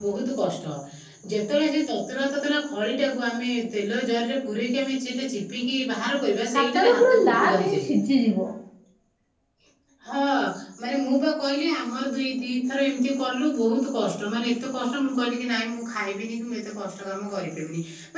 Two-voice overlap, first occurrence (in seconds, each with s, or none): 6.5 s